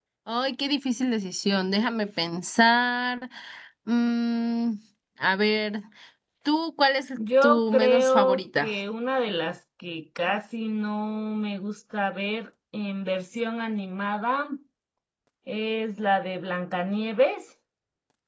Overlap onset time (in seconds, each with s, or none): 7.2 s